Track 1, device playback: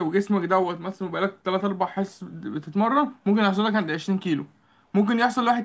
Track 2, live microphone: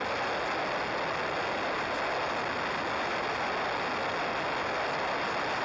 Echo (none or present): none